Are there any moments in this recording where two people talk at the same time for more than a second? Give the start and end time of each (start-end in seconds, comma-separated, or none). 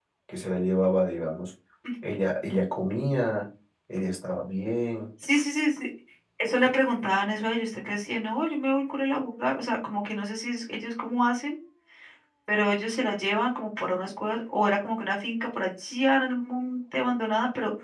none